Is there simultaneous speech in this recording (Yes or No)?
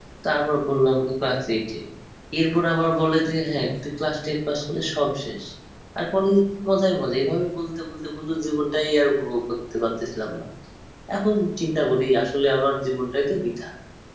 No